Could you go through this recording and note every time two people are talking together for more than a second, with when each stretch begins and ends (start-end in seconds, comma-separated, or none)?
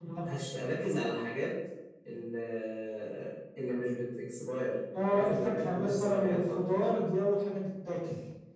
5.0-7.0